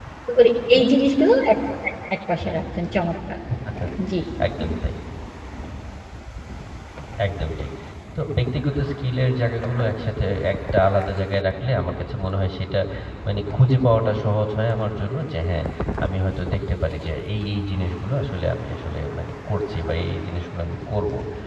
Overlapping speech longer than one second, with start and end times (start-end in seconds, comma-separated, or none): none